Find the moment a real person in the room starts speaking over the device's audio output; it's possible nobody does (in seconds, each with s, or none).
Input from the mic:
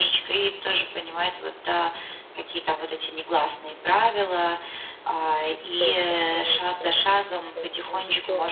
5.7 s